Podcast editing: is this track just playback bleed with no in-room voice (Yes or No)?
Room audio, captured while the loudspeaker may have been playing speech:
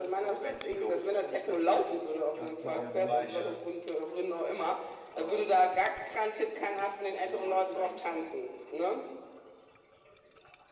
No